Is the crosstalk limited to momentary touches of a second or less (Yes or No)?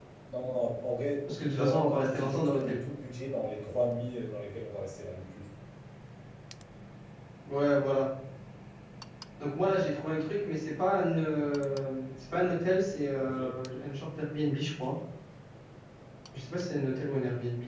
No